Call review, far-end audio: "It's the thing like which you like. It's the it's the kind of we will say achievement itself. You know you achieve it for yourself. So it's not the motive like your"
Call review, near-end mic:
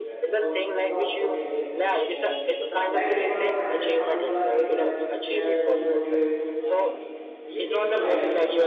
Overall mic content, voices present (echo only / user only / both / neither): both